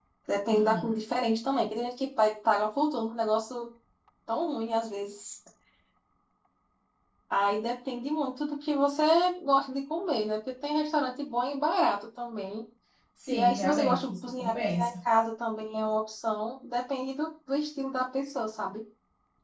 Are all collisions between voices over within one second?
No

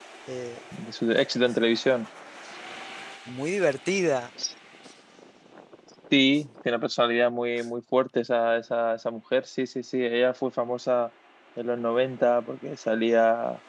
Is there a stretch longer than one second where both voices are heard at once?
No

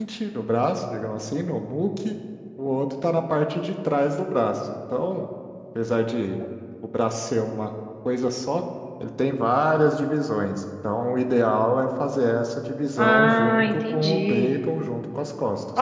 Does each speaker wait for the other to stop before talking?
No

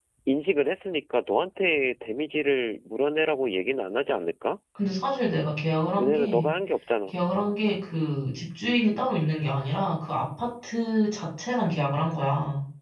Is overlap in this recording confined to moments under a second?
Yes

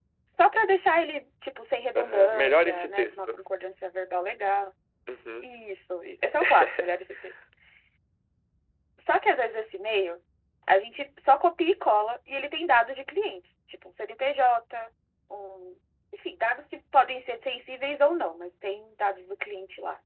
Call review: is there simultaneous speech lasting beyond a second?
Yes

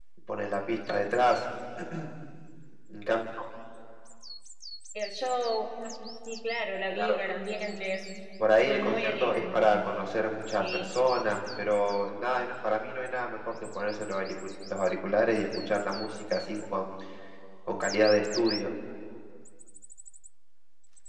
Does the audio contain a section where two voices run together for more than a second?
Yes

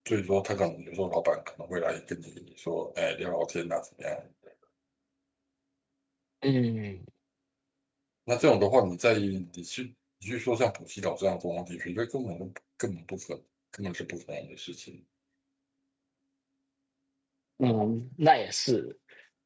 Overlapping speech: No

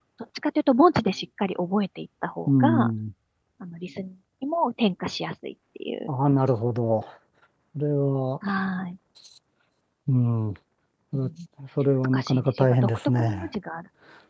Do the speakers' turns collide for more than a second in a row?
Yes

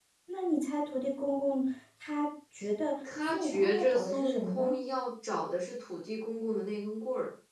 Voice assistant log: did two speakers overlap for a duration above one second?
Yes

